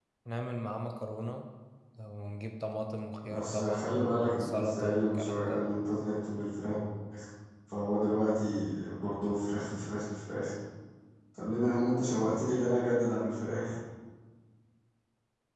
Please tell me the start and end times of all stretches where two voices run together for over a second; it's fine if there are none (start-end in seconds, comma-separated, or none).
3.2-5.7